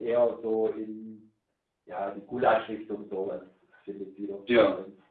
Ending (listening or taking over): listening